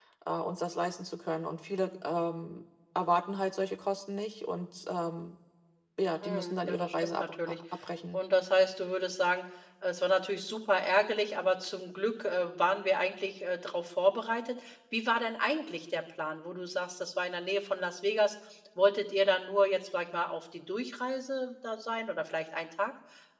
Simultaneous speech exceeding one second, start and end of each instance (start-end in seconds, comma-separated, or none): 6.2-7.5